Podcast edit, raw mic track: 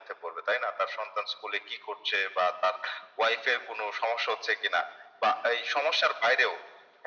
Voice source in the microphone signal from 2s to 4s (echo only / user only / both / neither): echo only